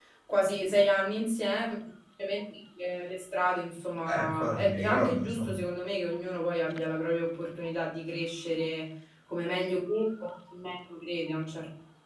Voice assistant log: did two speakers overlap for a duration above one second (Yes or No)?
Yes